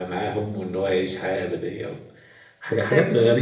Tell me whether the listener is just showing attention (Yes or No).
Yes